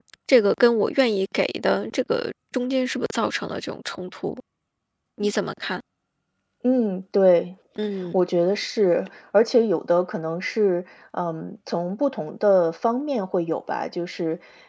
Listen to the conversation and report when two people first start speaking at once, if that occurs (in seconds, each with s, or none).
none